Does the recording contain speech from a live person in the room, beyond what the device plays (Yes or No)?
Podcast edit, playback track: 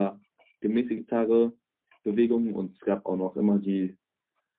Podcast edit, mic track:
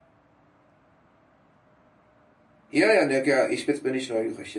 Yes